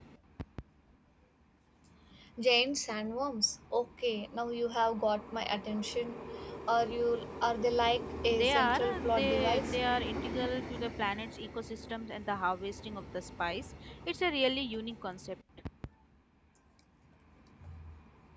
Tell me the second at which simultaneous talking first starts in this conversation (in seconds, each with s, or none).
8.3 s